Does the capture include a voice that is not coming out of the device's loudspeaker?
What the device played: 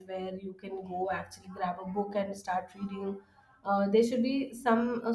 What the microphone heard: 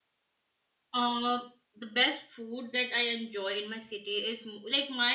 Yes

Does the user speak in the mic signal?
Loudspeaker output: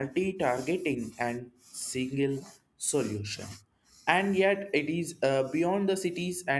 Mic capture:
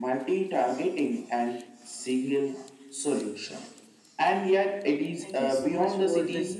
Yes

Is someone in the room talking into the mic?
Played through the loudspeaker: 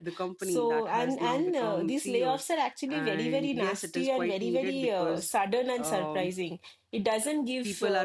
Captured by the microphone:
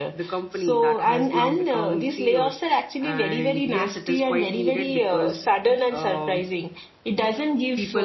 No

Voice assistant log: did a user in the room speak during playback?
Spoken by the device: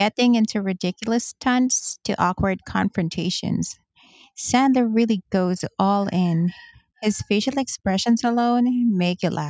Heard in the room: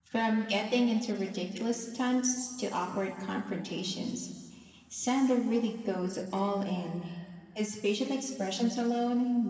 No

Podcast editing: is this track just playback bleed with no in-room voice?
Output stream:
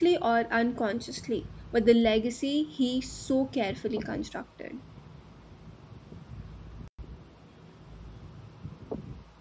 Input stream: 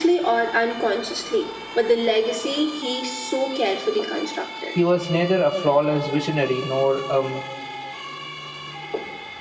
No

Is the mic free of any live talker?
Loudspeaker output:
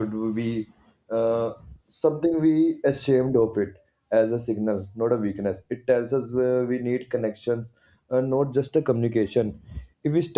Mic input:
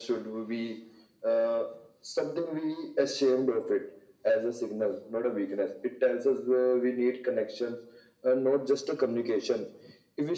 Yes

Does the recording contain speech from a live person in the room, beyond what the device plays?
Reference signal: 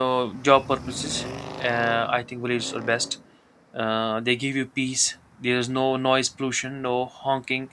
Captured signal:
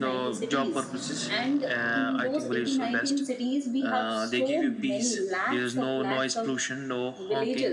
Yes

